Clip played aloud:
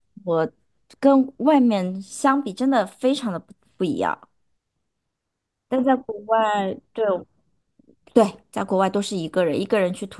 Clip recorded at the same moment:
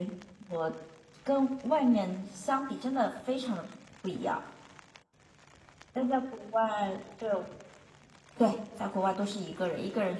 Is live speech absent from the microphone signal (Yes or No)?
Yes